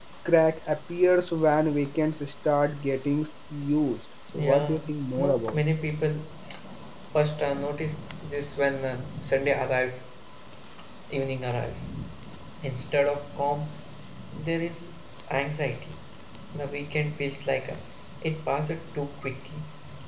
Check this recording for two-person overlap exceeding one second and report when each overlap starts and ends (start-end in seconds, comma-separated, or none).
4.3-5.6